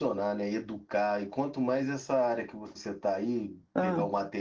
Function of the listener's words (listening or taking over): listening